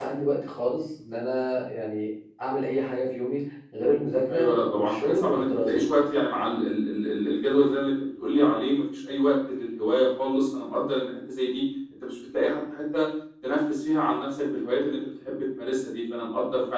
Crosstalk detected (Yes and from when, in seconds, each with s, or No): Yes, from 4.3 s